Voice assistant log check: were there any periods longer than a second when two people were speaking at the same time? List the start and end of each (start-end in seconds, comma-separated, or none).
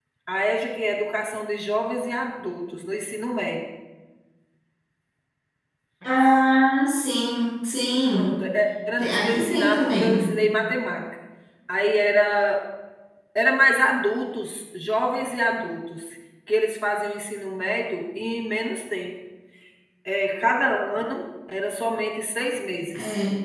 9.0-10.3